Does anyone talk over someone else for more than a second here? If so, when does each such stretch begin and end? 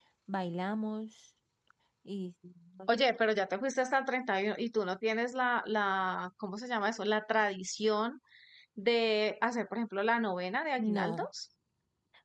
none

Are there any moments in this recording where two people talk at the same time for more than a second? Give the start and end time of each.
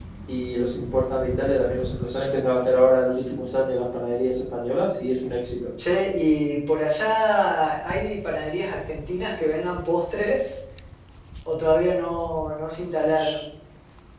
none

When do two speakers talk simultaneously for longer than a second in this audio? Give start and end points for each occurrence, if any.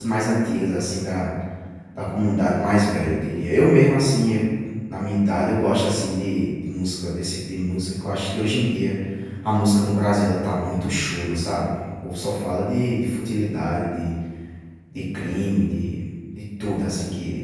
none

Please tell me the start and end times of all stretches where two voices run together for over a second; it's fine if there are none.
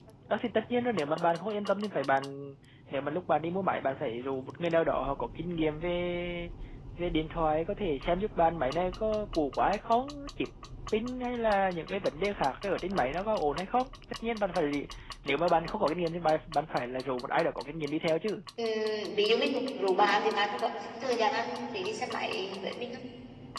none

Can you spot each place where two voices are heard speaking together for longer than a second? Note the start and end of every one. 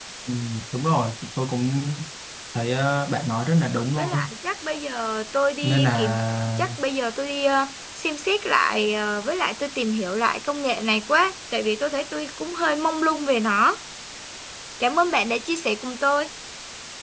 none

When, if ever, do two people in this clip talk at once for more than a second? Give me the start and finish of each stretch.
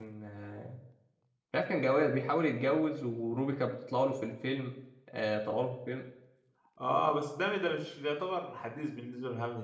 none

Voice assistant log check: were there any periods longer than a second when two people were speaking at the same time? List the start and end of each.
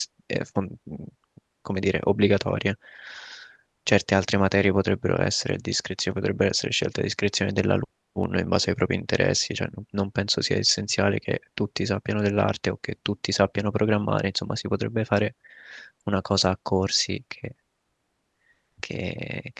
none

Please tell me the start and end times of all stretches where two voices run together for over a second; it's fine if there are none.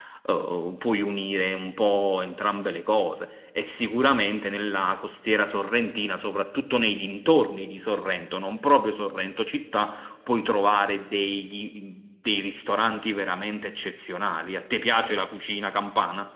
none

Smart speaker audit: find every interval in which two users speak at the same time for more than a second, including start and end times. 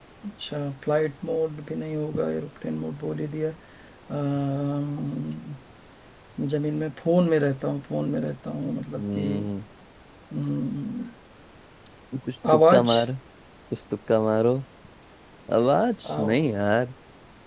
none

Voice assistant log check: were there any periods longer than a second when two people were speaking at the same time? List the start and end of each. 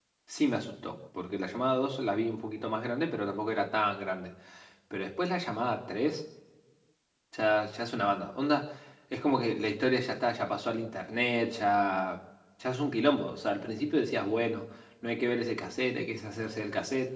none

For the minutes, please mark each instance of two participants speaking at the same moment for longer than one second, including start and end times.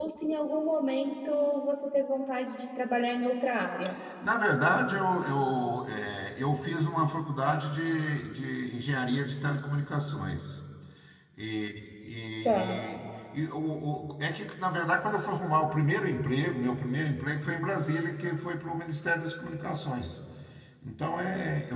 none

